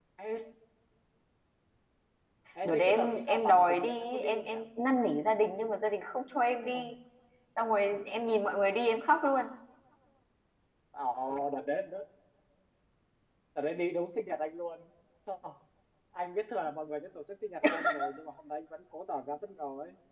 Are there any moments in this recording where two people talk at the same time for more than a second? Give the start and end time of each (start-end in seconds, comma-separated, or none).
2.6-4.6